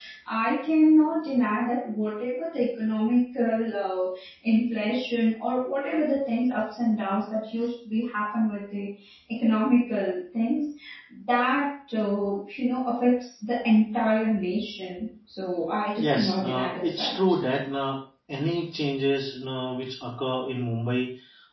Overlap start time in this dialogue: 15.9 s

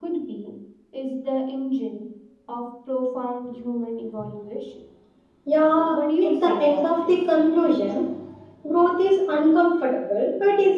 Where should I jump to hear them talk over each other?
5.9 s

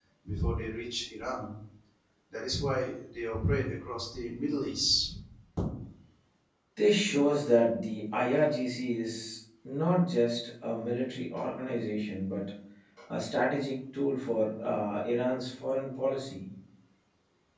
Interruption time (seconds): none

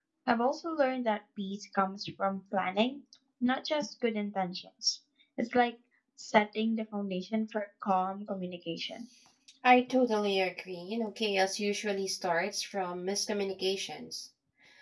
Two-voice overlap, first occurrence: none

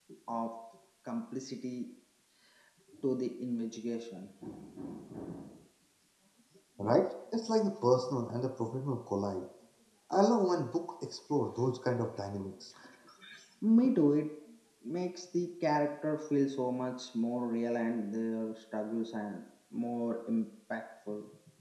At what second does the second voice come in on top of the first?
none

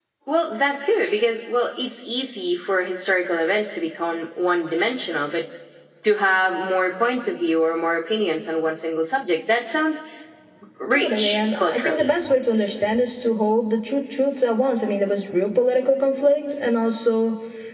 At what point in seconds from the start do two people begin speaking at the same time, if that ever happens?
10.9 s

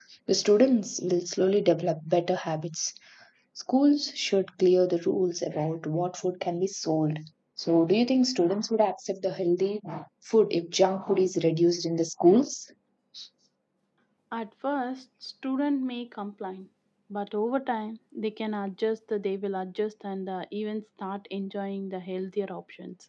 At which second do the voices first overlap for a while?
none

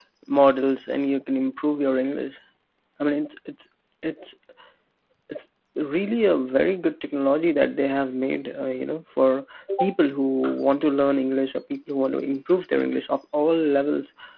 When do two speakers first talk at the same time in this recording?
none

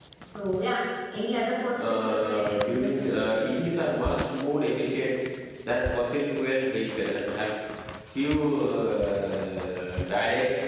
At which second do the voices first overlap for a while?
1.8 s

